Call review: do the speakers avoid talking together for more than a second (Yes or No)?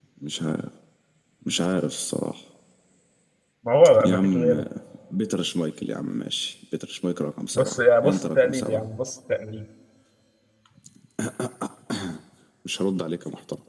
No